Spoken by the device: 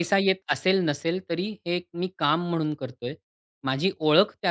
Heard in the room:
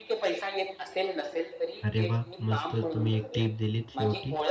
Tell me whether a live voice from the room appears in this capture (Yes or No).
Yes